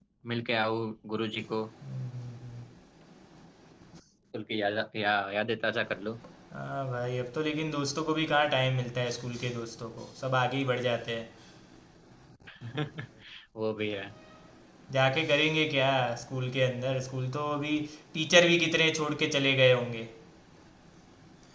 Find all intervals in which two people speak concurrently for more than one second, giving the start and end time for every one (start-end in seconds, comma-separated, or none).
none